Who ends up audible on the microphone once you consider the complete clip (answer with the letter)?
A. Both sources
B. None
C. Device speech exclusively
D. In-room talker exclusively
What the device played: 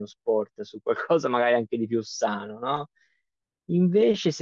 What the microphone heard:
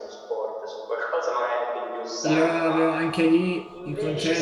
A